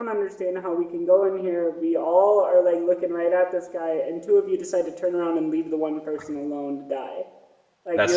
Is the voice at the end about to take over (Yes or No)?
No